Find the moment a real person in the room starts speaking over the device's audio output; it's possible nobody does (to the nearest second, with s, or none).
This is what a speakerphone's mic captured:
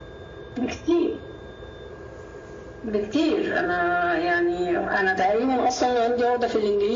none